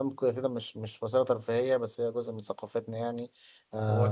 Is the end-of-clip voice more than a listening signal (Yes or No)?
Yes